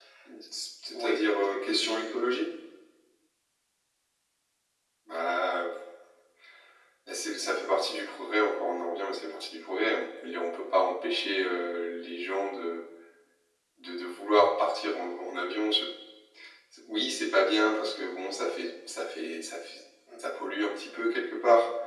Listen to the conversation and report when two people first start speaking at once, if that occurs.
0.9 s

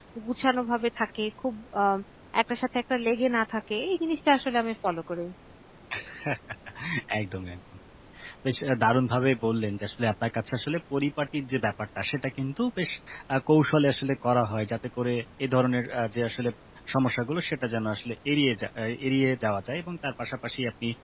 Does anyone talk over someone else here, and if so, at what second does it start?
none

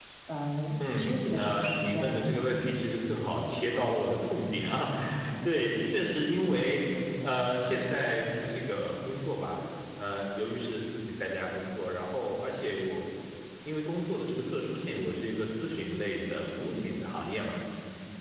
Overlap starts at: 0.8 s

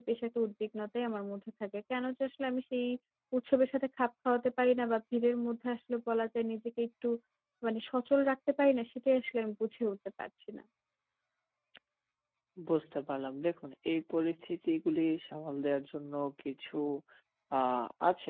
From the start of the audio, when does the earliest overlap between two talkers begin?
none

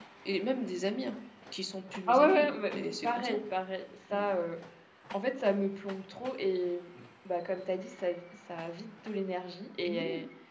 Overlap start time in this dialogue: 2.1 s

